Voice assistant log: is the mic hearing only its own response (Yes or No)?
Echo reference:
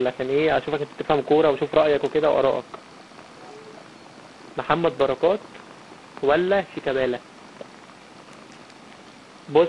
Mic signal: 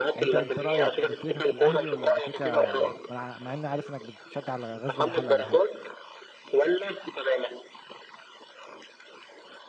No